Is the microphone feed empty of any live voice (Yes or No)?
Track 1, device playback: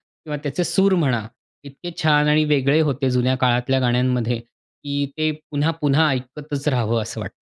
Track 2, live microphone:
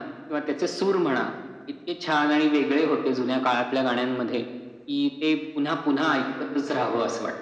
Yes